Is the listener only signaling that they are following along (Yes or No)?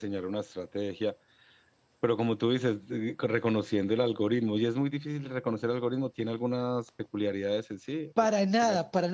No